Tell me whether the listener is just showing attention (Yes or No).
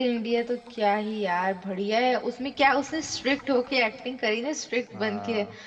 Yes